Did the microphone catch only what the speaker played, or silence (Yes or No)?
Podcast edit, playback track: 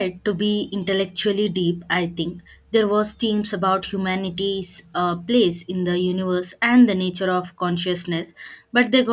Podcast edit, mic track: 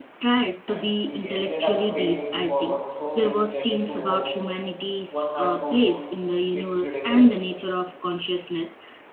No